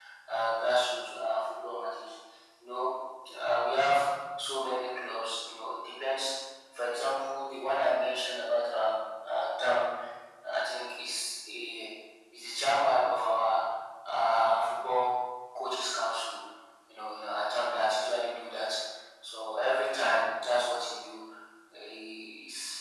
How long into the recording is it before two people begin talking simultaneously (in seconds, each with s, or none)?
none